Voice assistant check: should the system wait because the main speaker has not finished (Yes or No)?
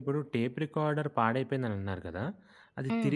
Yes